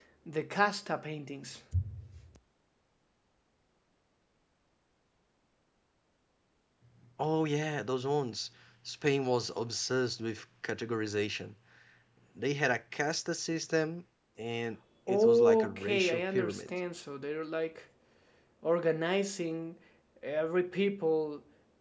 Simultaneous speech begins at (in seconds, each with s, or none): 15.1 s